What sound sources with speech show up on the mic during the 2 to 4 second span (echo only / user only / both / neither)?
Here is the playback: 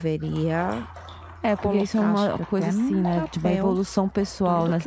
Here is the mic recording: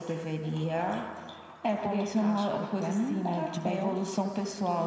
echo only